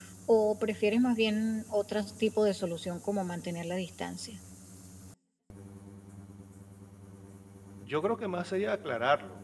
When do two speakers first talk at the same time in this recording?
none

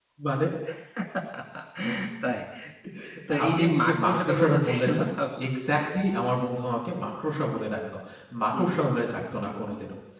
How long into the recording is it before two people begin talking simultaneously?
3.5 s

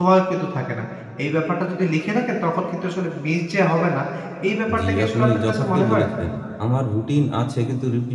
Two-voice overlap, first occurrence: 4.8 s

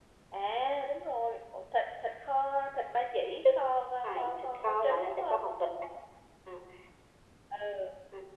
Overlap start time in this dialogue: 4.0 s

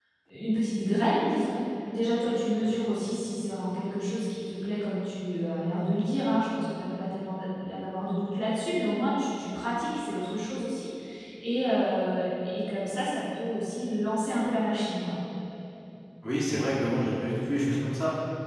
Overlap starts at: none

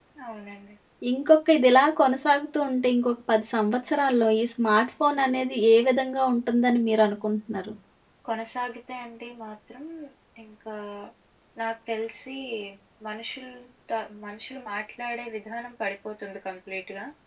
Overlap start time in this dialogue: none

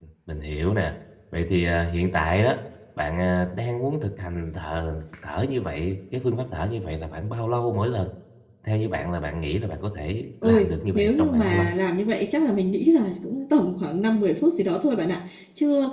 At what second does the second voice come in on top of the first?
10.4 s

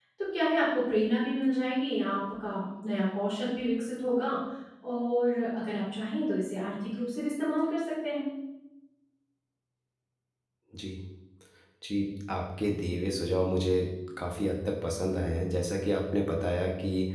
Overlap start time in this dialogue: none

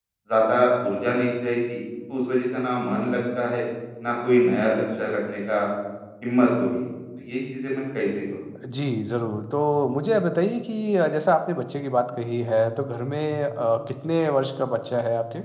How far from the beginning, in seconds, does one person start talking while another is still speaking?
none

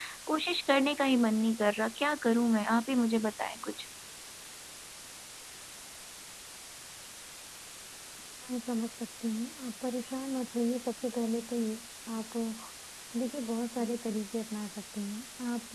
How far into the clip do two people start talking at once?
none

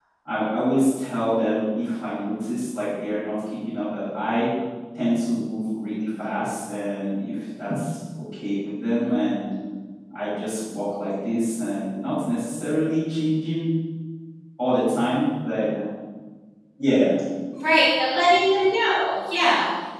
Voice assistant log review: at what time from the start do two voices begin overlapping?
none

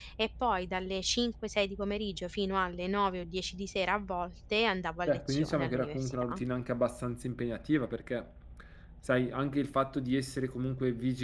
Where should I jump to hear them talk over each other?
5.0 s

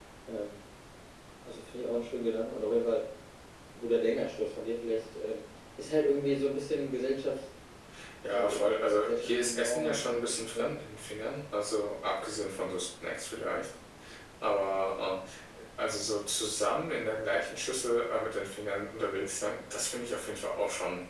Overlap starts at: 8.3 s

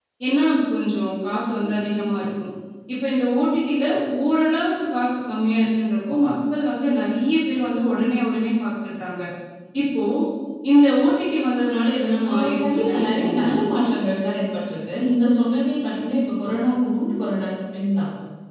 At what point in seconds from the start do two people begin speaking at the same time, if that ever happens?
12.2 s

